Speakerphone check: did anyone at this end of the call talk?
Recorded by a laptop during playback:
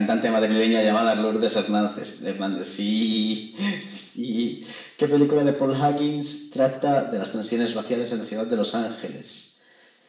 No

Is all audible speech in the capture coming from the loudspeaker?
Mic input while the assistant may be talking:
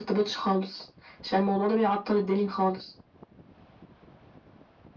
Yes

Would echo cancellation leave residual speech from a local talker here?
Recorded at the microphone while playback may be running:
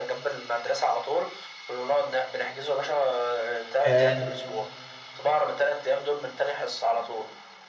Yes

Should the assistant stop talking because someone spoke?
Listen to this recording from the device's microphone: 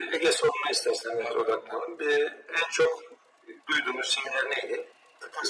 Yes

